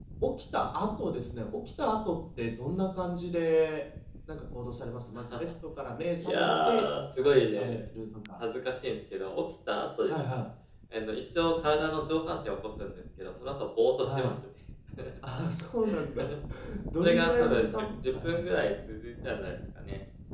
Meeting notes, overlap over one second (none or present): present